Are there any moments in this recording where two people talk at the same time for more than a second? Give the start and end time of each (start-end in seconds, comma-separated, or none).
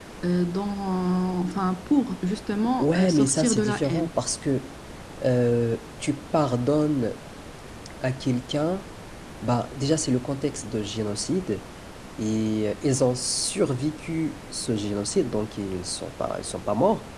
2.8-4.1